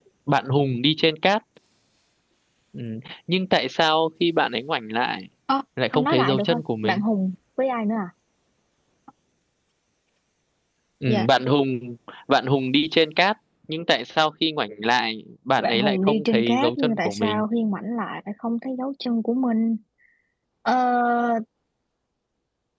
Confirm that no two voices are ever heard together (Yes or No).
No